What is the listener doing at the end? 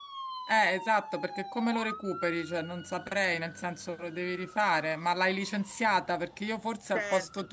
listening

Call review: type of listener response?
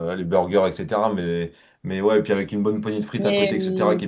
listening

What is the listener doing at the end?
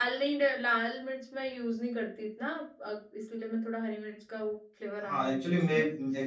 taking over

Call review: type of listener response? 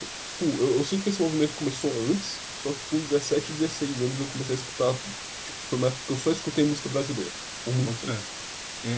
taking over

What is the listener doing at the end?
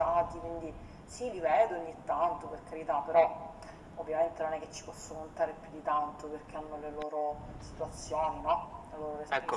taking over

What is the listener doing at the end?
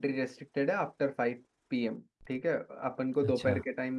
listening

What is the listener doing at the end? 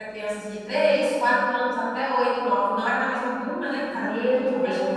taking over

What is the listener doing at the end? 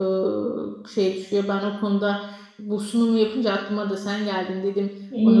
taking over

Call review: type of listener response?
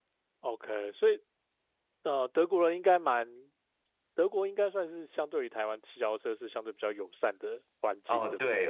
taking over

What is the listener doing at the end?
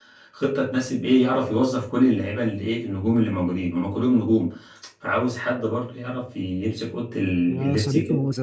taking over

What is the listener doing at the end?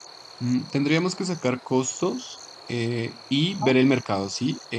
listening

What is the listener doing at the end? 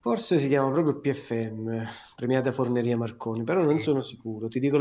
listening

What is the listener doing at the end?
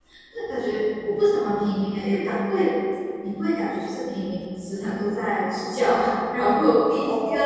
listening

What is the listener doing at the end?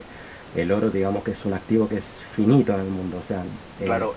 taking over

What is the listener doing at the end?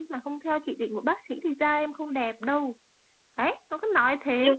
taking over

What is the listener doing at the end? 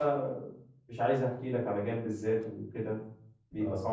taking over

